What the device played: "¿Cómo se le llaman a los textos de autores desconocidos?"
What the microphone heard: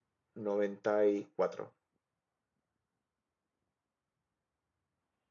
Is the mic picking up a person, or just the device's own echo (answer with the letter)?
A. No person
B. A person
B